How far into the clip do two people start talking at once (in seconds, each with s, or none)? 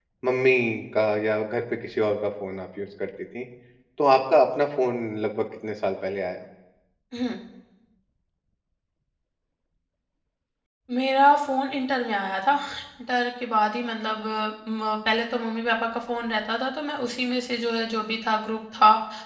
none